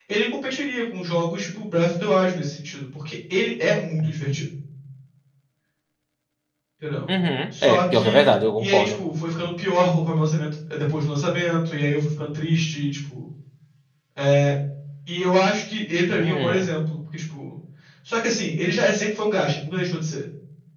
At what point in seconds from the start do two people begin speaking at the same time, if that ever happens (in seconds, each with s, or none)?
7.6 s